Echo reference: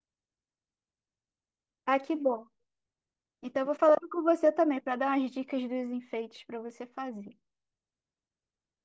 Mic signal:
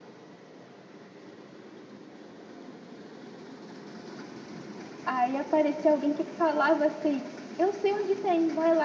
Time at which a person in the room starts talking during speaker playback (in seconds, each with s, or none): 5.0 s